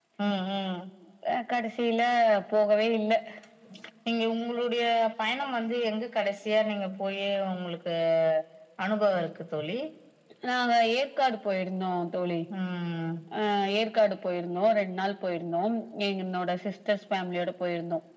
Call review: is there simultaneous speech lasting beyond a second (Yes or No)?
No